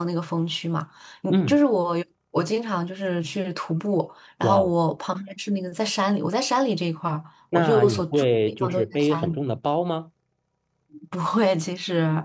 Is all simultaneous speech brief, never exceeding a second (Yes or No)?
No